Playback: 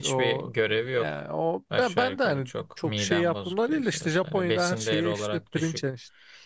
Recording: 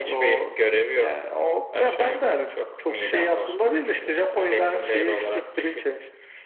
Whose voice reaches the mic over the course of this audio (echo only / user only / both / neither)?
echo only